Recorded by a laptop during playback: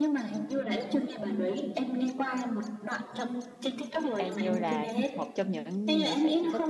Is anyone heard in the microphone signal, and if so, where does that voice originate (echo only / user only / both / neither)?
both